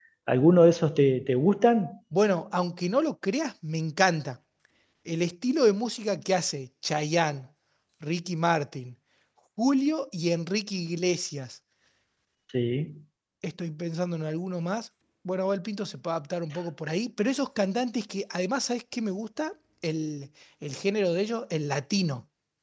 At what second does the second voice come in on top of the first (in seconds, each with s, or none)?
none